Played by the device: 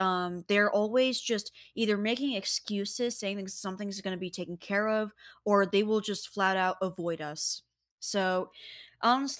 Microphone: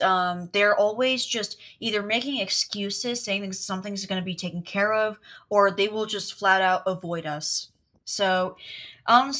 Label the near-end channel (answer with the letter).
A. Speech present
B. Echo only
B